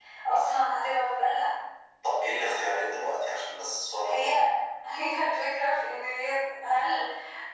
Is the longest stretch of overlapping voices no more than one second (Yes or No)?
Yes